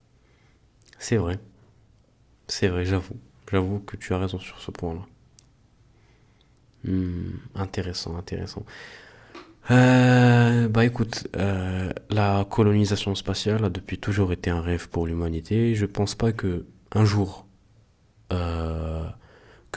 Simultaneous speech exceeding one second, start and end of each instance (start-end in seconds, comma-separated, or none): none